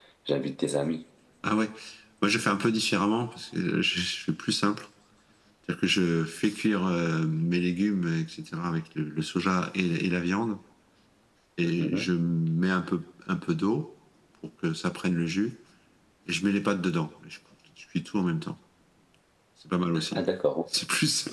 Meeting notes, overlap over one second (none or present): none